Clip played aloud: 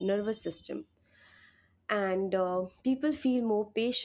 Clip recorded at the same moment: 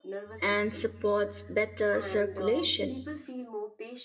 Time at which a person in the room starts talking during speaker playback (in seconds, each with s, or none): 0.4 s